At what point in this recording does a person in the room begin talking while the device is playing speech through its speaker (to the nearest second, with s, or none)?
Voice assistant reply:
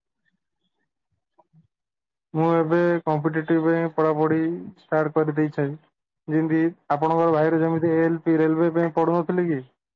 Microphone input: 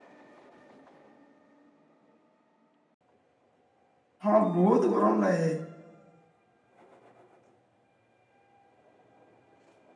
4 s